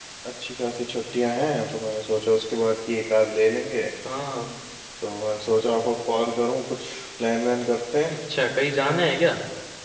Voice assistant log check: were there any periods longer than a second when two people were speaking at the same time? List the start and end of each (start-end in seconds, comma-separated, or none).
none